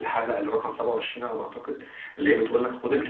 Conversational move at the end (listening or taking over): listening